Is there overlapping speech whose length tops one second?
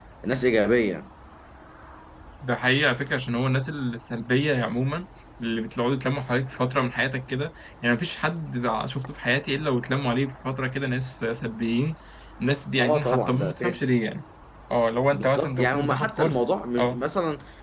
Yes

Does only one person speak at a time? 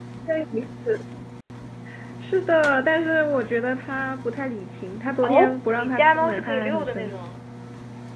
No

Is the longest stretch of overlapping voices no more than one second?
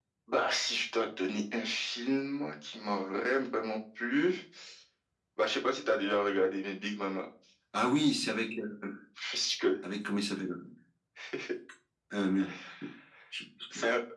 Yes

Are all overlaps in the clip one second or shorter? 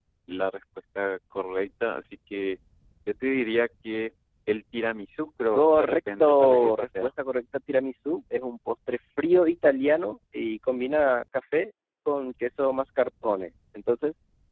No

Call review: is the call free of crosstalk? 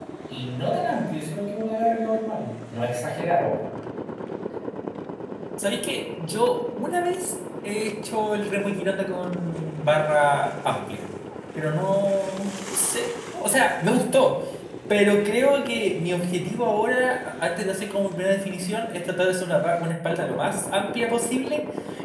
Yes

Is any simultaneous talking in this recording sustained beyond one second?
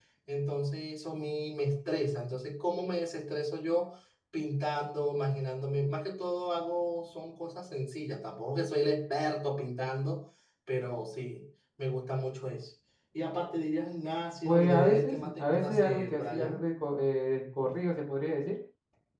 Yes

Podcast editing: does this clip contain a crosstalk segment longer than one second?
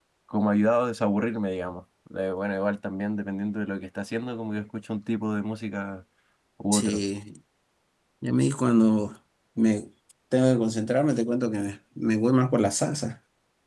No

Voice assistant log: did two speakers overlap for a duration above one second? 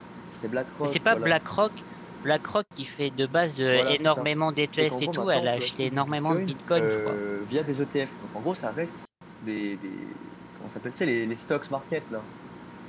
Yes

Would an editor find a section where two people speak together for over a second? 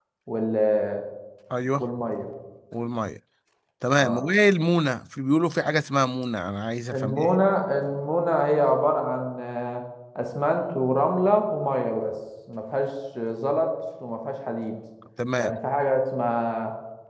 No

